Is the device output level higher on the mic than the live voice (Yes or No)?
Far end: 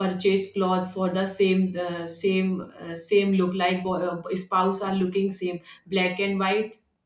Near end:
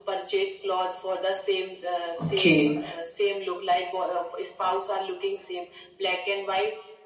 No